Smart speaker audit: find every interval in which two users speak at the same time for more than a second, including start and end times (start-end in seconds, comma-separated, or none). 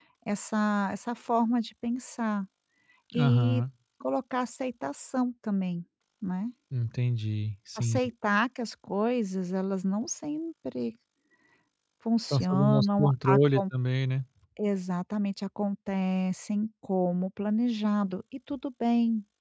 12.3-13.6